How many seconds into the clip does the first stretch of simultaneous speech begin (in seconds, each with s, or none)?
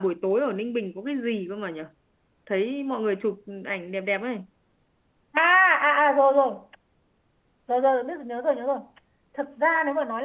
none